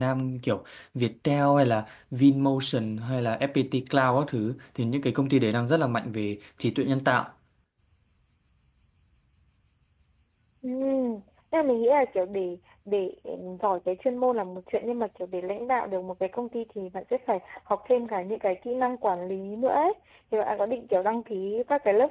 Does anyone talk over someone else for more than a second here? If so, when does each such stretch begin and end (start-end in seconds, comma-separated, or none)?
none